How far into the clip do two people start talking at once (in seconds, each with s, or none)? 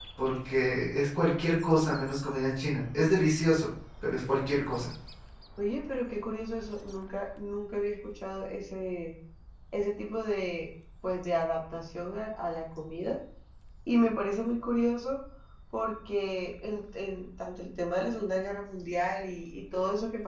none